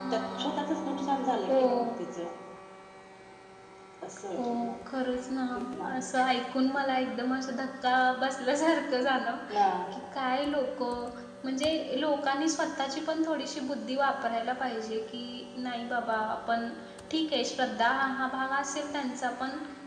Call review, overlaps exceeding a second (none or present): none